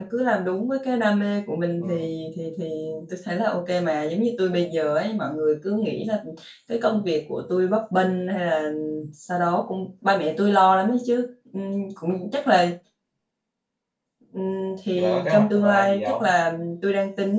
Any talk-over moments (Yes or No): Yes